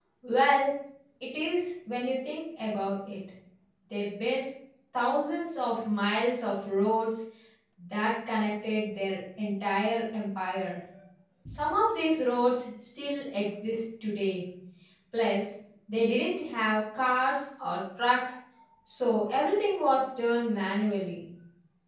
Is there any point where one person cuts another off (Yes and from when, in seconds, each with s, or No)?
No